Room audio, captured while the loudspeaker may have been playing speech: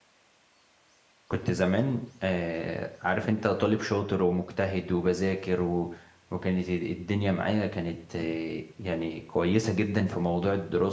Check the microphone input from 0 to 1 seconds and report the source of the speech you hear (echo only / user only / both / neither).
neither